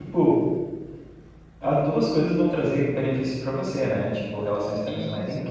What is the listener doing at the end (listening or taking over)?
listening